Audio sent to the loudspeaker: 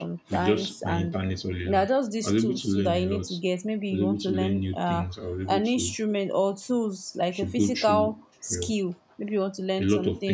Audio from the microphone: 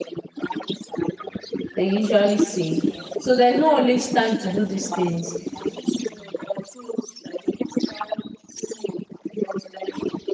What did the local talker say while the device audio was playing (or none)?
they usually say so there's not always time to do these things